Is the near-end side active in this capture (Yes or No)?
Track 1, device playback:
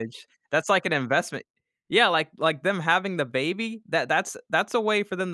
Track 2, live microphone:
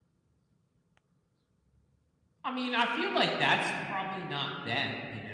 Yes